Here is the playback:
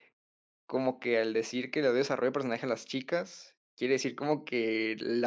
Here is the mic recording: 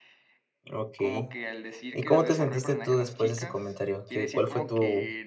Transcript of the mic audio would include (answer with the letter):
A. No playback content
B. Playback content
B